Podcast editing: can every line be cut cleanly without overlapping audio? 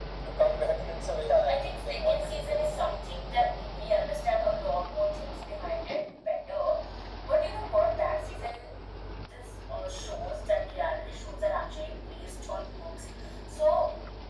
No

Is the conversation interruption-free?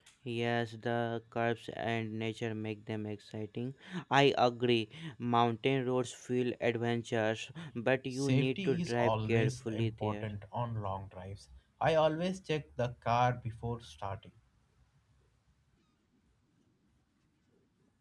No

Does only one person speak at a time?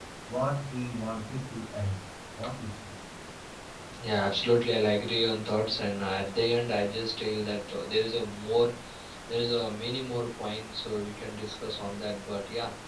Yes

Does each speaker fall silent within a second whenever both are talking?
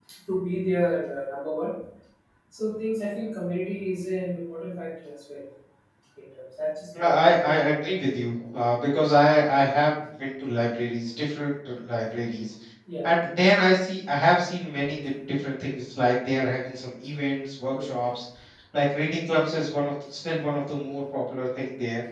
Yes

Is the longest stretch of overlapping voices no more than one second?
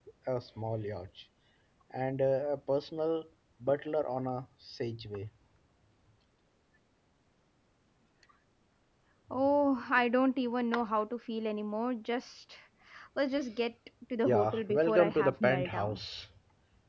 No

